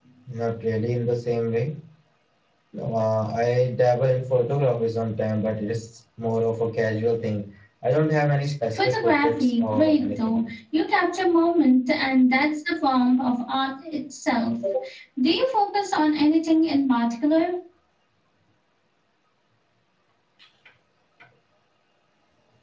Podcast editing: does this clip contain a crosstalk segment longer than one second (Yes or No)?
Yes